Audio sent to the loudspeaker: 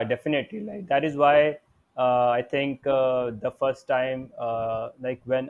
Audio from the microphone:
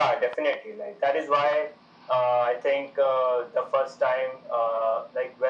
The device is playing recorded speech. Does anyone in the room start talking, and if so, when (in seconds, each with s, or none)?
none